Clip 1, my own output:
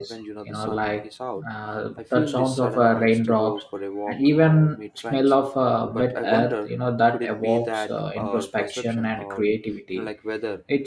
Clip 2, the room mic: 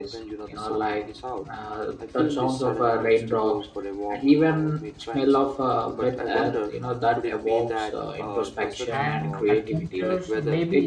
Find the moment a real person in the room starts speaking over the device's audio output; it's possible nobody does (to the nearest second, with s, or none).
9 s